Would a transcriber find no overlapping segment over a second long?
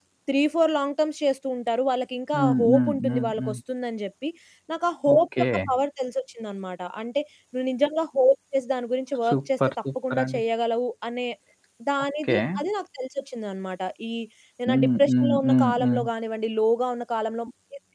No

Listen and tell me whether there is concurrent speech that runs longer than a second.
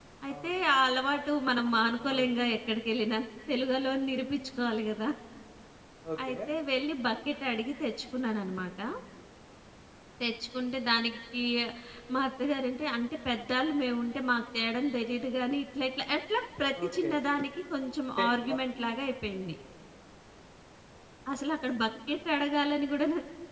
No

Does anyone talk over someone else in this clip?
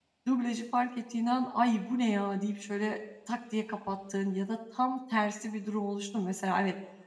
No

